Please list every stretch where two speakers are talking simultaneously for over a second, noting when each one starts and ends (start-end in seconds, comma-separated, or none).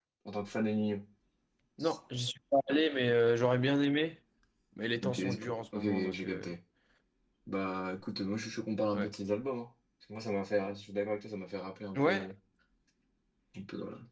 5.0-6.5